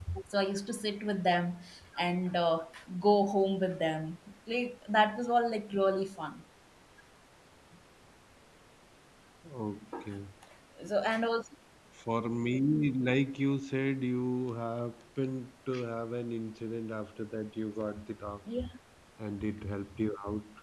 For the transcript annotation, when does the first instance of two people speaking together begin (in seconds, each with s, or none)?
none